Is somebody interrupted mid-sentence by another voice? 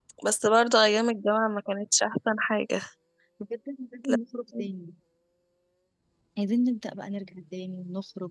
No

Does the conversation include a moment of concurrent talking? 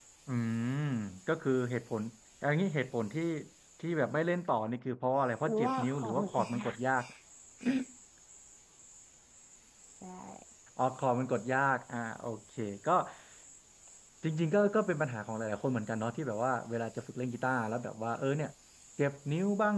Yes, from 5.4 s

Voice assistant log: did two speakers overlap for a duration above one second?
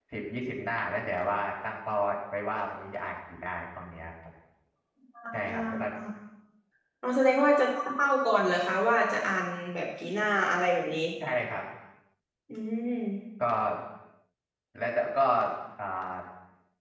No

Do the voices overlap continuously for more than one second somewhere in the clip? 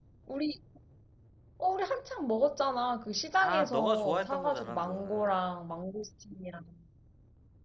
Yes, from 3.4 s

